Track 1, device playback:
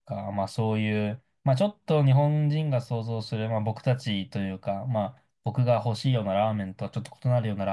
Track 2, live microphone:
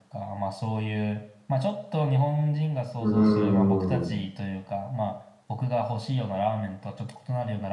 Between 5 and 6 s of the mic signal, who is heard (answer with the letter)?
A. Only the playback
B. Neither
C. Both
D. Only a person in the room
A